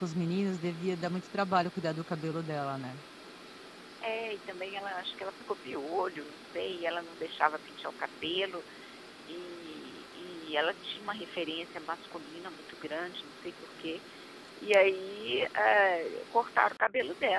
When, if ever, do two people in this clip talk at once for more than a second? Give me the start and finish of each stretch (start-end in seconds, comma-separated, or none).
none